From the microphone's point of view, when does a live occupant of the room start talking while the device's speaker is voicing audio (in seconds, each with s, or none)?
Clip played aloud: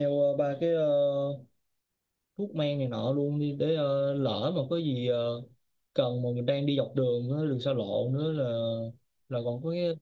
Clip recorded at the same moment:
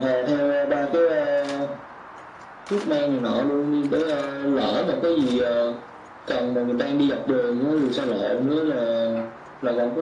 none